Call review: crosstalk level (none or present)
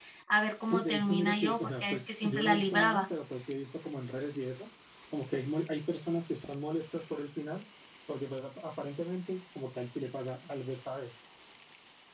present